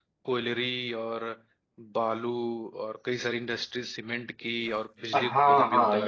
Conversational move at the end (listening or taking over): taking over